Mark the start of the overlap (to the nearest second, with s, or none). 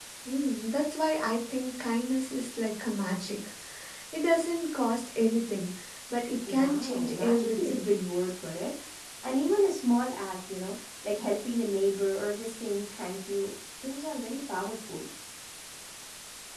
6 s